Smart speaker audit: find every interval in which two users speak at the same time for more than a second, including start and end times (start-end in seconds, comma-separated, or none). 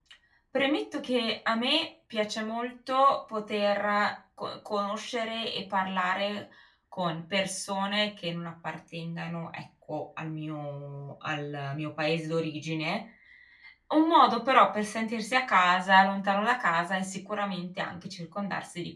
none